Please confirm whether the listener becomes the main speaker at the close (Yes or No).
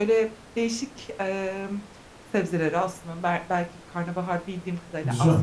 No